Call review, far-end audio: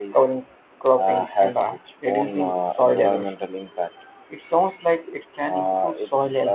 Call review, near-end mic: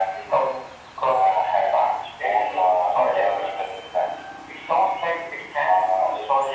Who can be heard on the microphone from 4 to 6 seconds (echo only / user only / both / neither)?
echo only